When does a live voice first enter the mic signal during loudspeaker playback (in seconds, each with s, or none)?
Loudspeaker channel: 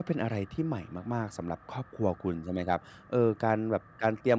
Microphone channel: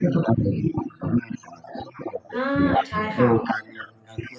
2.3 s